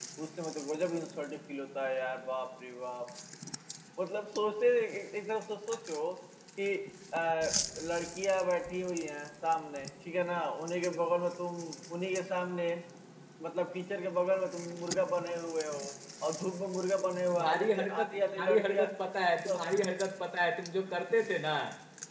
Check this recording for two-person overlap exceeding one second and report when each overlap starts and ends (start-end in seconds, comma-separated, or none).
17.3-18.9